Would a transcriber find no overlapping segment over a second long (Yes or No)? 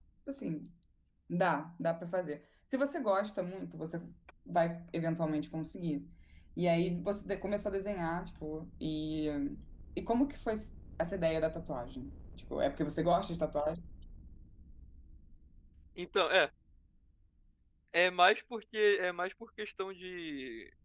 Yes